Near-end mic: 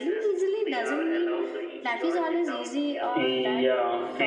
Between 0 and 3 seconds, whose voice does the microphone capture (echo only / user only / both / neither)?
echo only